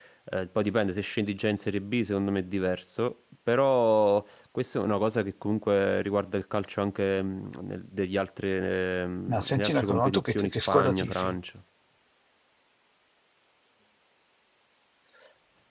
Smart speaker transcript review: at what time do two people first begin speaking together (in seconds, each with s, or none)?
9.3 s